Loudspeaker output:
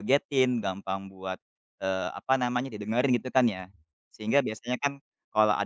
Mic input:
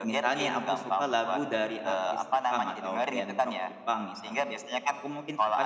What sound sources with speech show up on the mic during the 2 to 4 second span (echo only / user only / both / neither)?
both